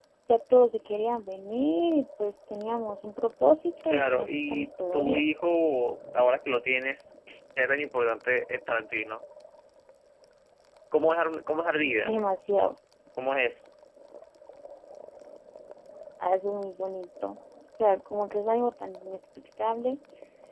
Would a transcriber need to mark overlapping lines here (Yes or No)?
Yes